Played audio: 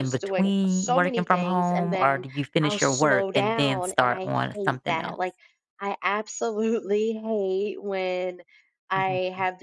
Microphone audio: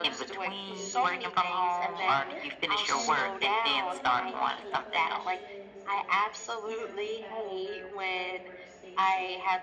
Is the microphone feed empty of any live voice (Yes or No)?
No